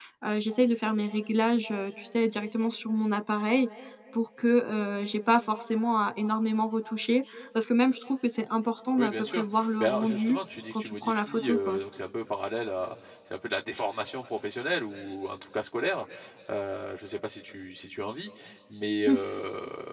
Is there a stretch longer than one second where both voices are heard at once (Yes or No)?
Yes